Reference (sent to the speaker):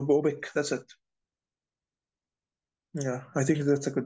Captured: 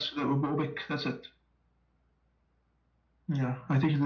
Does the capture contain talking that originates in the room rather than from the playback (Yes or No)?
No